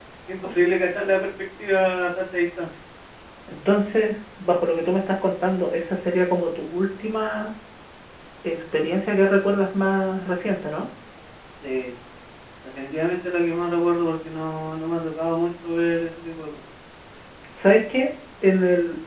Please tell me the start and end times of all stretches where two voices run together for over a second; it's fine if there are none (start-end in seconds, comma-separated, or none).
none